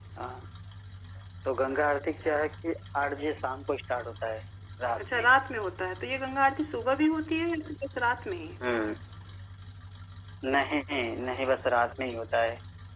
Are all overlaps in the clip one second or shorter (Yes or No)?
Yes